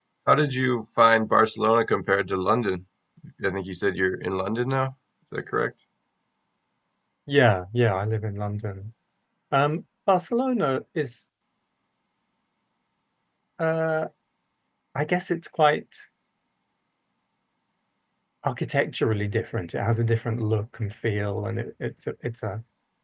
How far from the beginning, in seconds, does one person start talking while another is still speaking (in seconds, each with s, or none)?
none